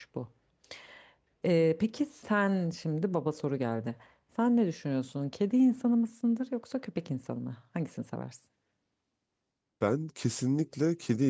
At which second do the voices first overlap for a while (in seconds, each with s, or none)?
none